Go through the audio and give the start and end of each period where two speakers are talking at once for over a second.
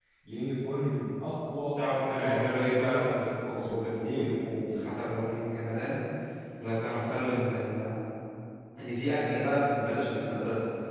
1.8-3.1, 3.5-4.9

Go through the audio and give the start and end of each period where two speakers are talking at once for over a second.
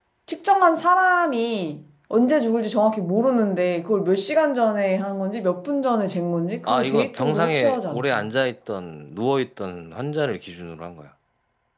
6.7-8.3

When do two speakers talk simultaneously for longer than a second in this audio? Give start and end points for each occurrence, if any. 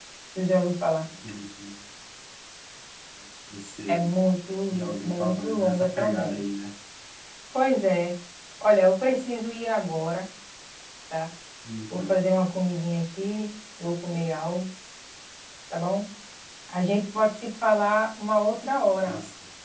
4.7-6.5

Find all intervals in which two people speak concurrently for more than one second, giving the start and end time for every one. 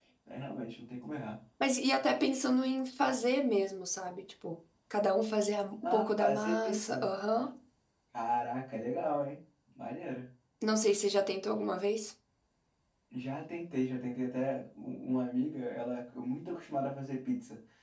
5.8-7.1

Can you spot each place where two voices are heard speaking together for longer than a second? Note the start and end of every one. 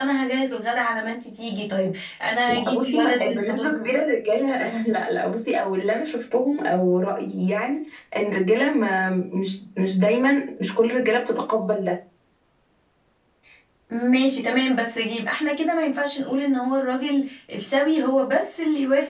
2.5-3.8

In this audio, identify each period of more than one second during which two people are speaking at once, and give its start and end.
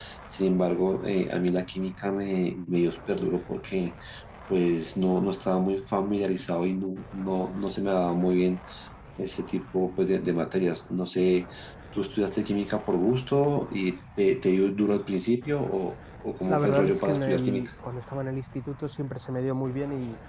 16.5-17.7

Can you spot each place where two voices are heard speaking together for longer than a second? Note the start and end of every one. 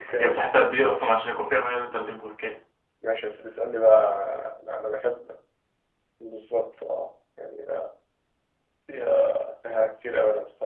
none

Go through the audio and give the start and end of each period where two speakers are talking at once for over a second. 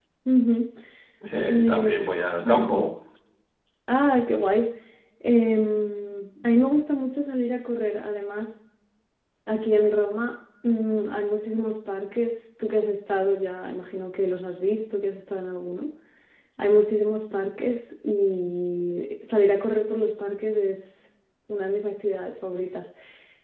1.4-2.8

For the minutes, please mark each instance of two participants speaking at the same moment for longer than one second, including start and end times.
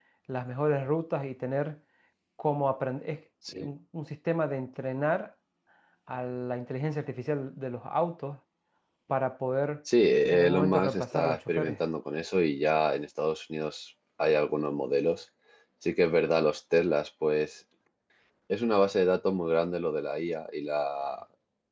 10.3-11.8

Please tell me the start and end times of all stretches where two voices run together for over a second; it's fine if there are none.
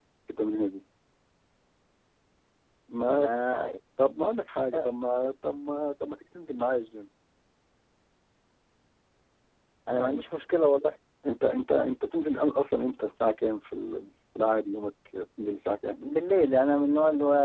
none

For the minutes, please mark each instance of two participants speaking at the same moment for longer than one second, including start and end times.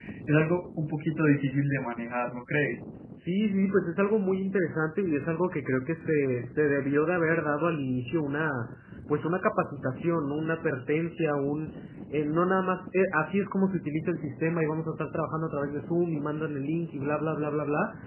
none

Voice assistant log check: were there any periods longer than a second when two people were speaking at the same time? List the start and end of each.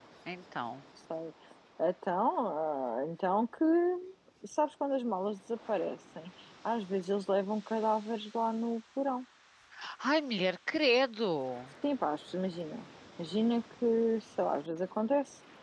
none

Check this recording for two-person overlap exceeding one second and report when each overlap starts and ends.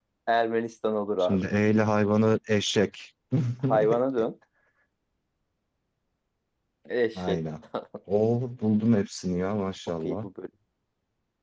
none

